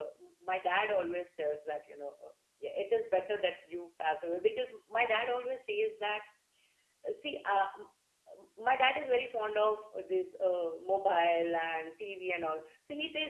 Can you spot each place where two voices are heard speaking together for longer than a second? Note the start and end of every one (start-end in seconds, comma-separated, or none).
none